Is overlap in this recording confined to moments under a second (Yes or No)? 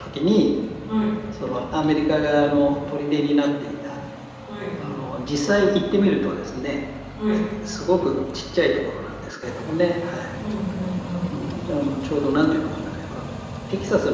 Yes